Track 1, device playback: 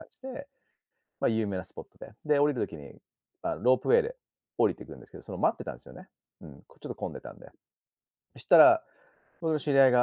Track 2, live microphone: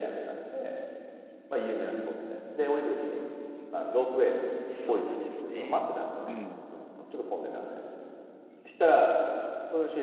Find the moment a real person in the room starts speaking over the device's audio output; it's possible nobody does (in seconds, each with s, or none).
4.7 s